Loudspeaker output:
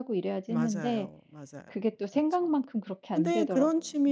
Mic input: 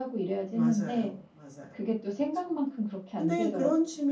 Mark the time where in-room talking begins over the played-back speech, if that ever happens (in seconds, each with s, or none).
none